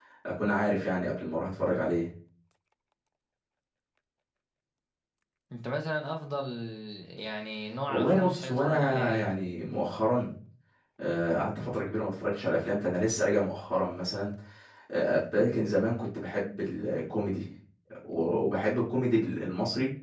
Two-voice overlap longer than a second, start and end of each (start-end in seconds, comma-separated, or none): 7.9-9.3